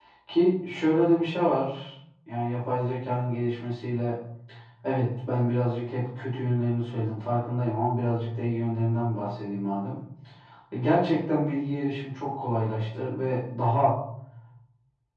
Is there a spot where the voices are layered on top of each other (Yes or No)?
No